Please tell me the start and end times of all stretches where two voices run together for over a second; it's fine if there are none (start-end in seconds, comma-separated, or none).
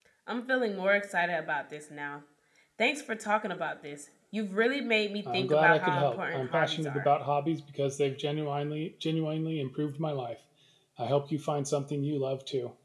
5.3-7.1